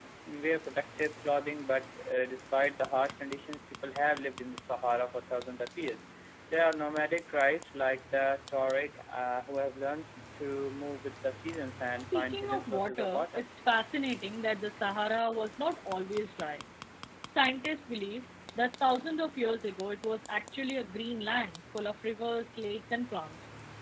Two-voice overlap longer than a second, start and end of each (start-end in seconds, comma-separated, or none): 11.9-13.4